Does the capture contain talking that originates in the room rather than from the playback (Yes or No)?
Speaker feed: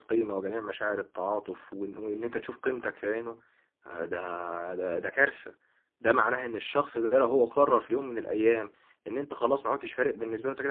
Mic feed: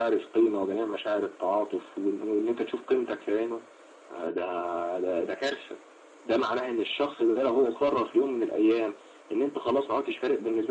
No